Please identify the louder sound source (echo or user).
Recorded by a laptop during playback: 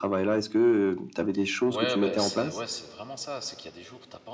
echo